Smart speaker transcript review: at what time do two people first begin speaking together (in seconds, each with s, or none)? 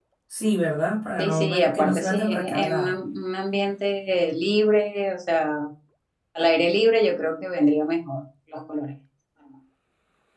1.2 s